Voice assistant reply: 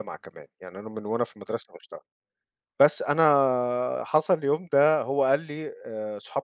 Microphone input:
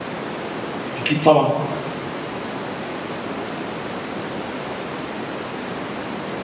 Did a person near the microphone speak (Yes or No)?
Yes